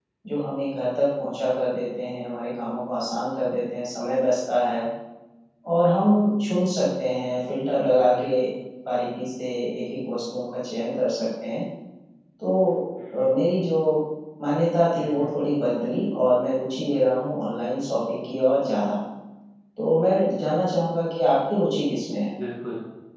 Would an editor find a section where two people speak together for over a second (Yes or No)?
No